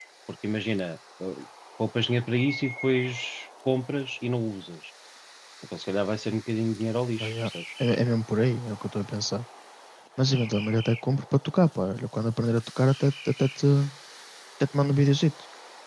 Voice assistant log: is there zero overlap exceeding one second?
Yes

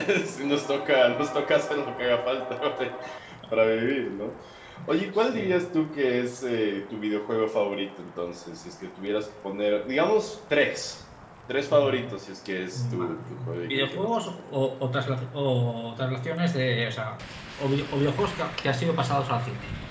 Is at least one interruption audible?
Yes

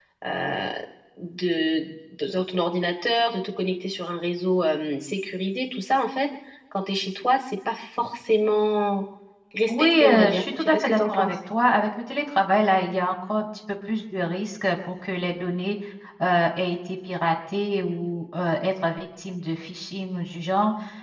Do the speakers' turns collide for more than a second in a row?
Yes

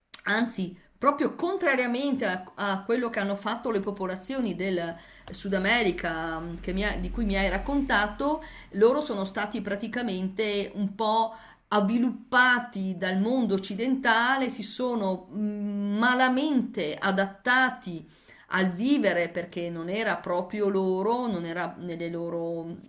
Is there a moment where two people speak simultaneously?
No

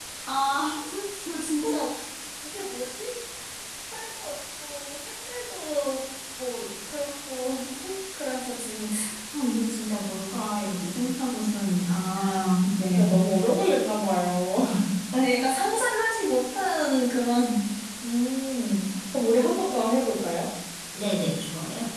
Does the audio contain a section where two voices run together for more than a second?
No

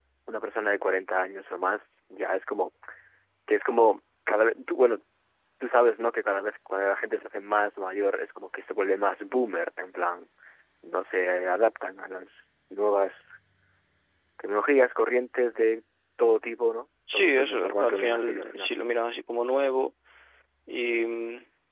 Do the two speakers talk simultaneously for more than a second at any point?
Yes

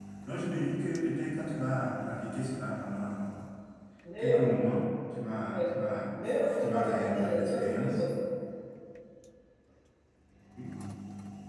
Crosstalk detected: Yes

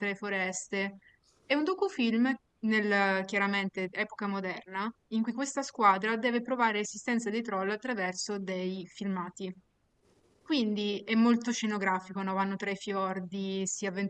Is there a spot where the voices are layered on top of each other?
No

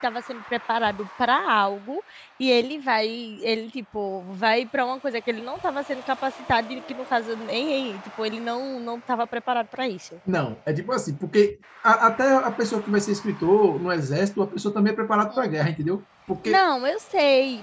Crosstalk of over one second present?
No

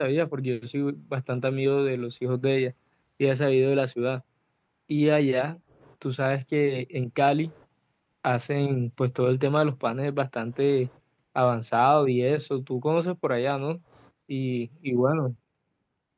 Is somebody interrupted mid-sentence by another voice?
No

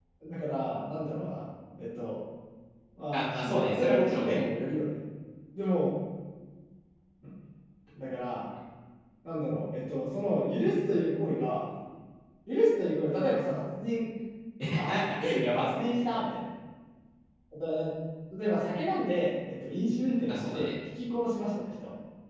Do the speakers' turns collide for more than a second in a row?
Yes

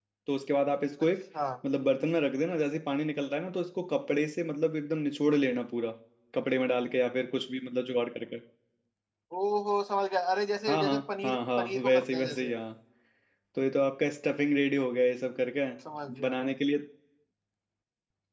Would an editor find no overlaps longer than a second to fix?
No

